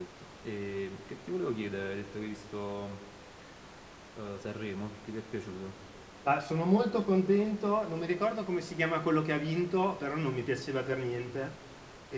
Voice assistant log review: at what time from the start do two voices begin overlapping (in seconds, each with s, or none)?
none